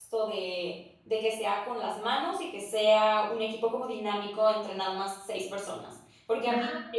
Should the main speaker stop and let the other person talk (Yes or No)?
No